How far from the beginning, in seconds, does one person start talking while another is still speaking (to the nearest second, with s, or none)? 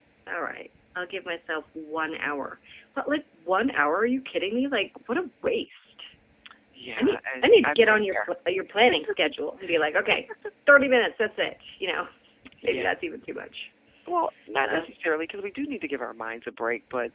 7 s